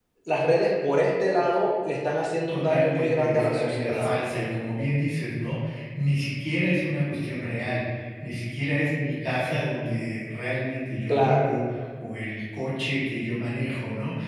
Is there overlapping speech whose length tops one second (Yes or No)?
Yes